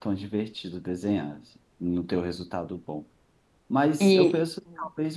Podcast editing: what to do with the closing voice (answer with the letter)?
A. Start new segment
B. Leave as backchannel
B